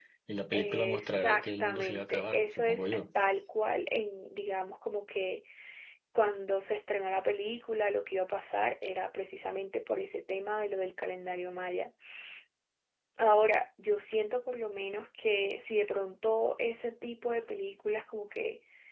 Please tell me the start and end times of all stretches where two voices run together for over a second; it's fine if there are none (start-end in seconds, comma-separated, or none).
0.5-3.0